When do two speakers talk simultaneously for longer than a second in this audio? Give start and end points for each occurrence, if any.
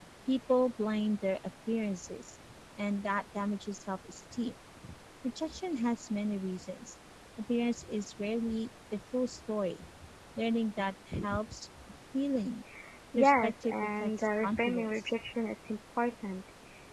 13.2-15.1

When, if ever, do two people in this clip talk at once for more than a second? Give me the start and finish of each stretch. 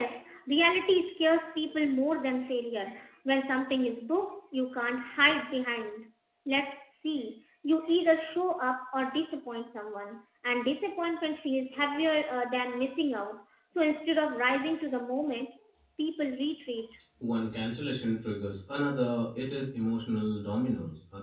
none

